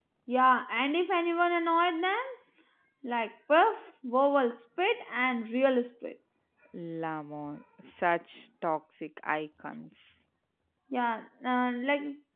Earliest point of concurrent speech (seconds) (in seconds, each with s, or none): none